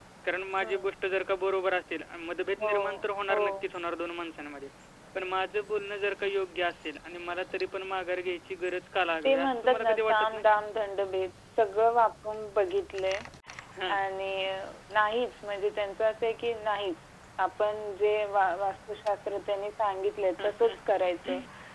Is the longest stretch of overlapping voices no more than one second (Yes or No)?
No